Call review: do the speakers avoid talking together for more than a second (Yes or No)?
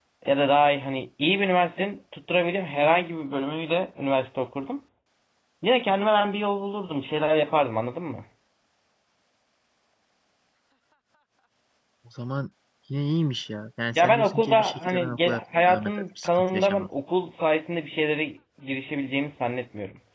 No